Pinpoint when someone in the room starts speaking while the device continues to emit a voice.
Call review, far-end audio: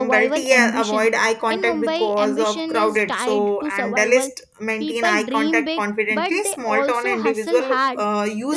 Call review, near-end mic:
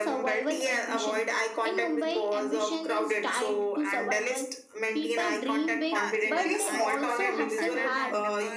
5.9 s

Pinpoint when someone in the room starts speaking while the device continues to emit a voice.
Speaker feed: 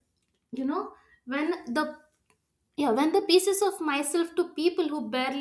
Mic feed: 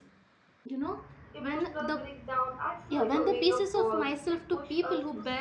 1.3 s

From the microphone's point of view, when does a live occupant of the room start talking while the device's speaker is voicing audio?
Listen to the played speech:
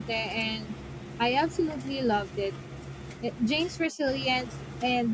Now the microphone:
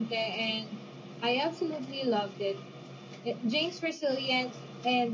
none

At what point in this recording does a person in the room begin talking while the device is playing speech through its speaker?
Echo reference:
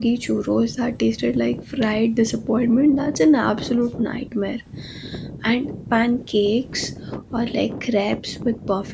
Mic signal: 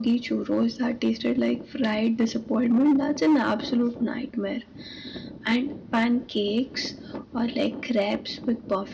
none

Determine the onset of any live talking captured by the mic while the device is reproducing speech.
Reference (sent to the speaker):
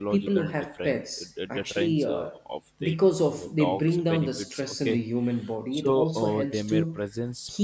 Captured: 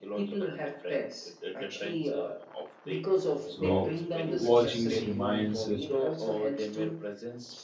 3.4 s

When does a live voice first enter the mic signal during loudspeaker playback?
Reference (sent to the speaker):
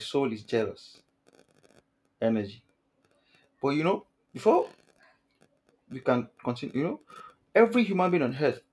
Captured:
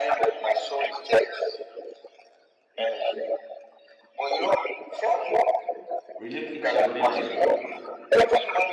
6.2 s

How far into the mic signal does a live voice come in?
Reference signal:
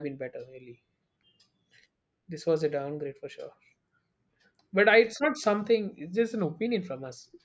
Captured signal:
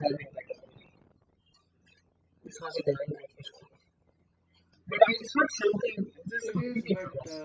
6.4 s

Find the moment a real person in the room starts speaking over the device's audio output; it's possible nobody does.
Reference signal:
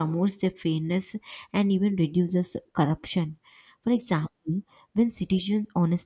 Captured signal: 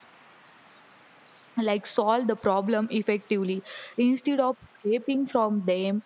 1.6 s

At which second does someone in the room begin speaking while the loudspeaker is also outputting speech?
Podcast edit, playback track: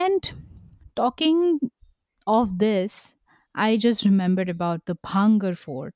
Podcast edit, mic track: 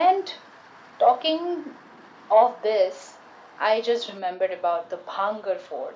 none

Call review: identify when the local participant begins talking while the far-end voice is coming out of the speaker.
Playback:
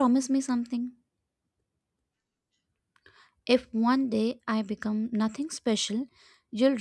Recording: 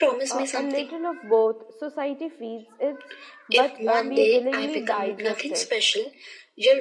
0.3 s

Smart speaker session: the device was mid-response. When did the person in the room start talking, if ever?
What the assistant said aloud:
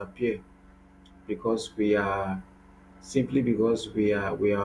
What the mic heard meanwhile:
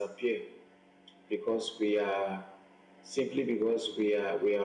none

